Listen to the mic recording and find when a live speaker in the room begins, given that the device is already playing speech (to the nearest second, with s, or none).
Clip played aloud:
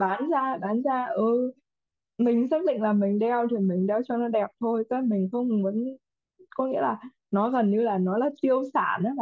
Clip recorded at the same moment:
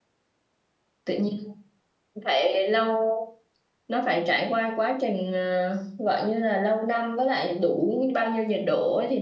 1 s